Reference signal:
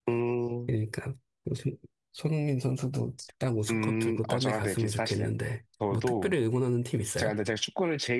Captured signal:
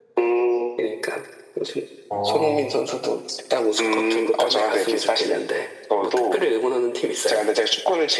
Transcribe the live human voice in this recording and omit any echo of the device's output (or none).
어,